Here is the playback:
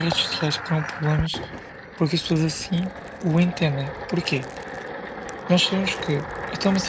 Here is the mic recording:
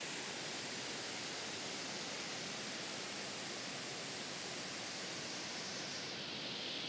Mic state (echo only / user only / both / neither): neither